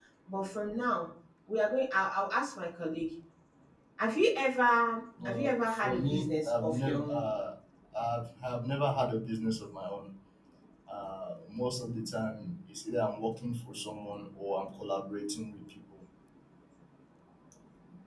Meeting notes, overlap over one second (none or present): present